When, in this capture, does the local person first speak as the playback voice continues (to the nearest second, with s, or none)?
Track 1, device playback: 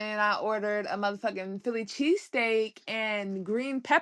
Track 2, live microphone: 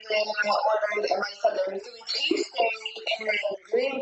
none